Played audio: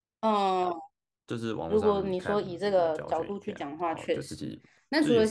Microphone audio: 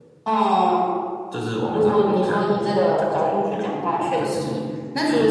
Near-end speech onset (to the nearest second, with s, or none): none